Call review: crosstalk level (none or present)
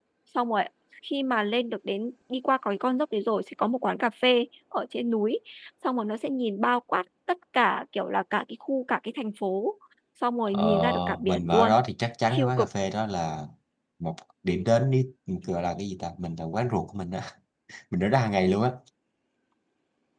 present